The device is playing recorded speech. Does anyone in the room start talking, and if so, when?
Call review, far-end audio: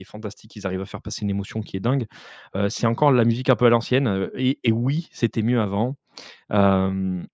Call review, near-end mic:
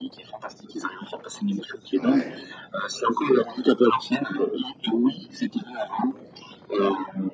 1.9 s

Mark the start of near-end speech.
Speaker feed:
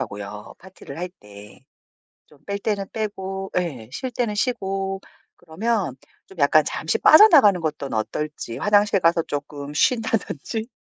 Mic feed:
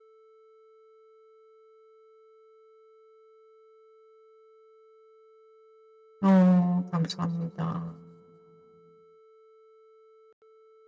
6.2 s

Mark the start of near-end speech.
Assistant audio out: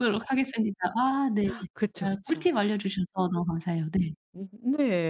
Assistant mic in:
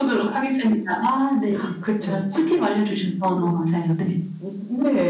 none

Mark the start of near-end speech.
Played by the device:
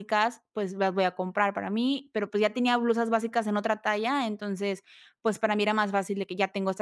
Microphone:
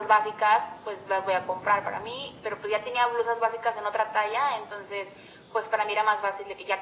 none

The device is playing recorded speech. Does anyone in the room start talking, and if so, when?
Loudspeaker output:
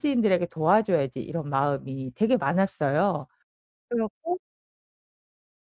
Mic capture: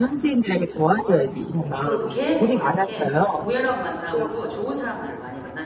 1.7 s

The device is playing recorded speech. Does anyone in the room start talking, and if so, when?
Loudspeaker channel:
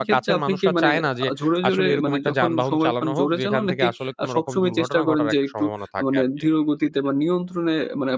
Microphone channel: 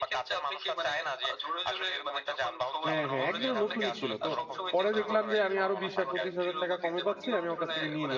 2.9 s

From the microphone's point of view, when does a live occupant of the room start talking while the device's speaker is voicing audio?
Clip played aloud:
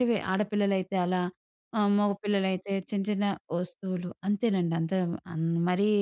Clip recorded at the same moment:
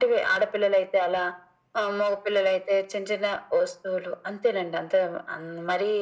none

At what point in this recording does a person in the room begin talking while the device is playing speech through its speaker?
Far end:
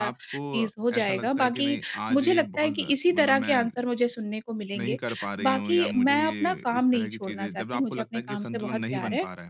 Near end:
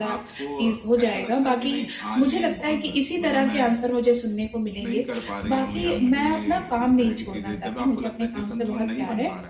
none

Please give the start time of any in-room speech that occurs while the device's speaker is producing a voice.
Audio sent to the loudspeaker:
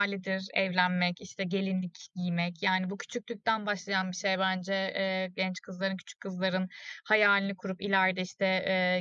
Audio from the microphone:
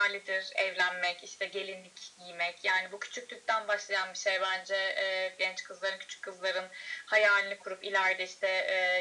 none

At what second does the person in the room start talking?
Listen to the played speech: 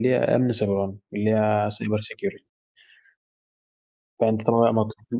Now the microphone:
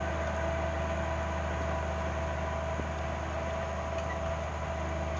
none

